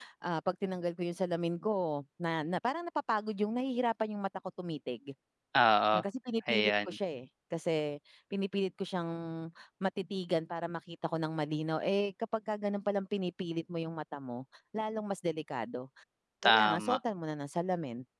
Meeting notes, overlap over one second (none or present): none